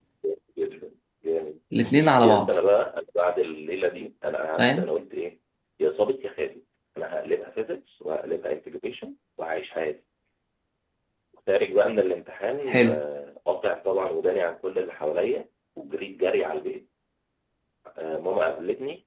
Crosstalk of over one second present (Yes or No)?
No